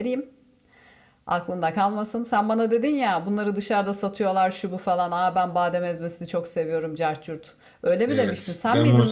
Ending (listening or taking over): taking over